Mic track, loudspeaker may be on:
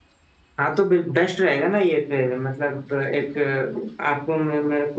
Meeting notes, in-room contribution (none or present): present